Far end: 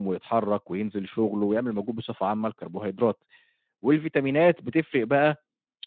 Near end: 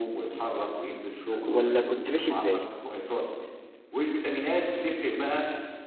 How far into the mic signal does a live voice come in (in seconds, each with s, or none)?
1.4 s